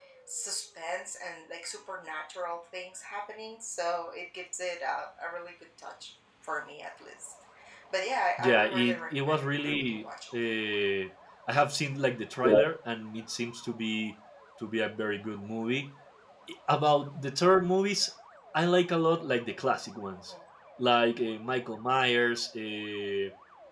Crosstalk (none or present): present